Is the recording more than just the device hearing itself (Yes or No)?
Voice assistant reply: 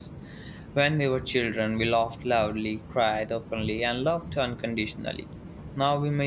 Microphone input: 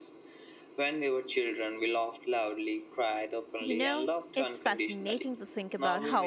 Yes